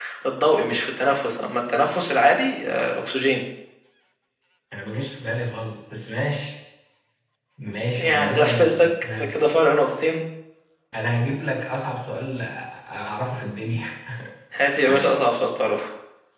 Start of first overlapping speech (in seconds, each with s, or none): 8.0 s